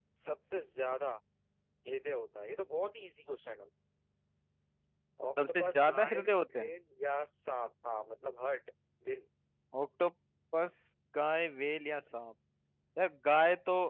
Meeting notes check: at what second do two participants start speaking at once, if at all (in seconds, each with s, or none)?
5.5 s